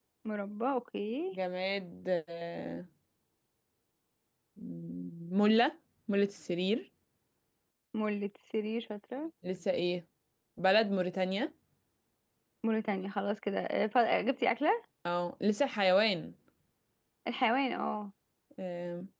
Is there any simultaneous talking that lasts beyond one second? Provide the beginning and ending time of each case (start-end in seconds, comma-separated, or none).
none